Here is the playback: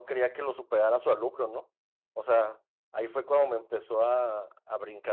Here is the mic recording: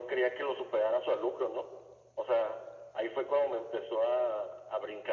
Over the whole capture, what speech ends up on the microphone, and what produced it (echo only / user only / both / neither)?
echo only